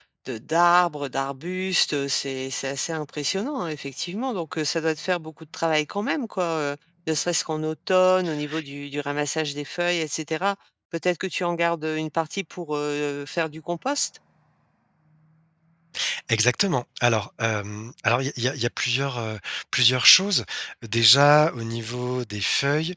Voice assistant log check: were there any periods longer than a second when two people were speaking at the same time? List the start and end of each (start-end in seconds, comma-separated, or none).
none